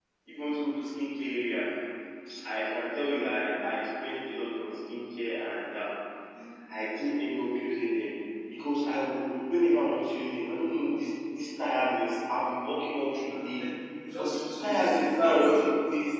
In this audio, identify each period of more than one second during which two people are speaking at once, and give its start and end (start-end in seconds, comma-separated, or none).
14.2-15.6